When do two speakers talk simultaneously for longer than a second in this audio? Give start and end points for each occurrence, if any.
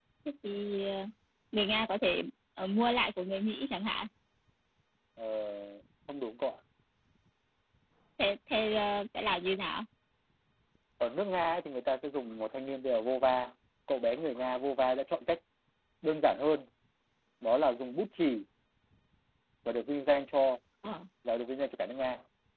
none

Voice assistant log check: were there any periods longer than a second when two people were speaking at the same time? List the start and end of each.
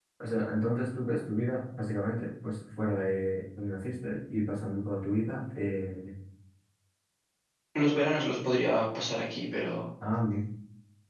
none

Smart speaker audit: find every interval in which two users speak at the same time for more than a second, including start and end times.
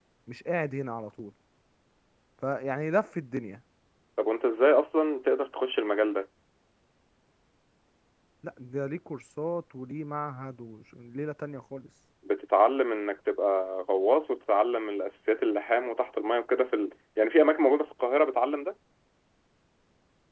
none

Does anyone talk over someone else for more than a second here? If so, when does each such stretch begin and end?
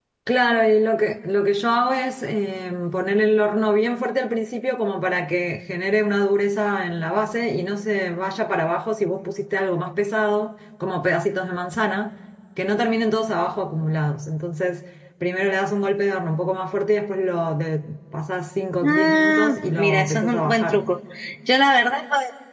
18.8-20.9

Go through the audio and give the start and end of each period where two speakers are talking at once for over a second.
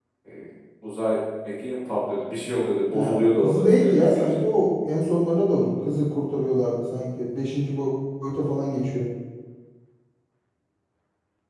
2.9-4.2

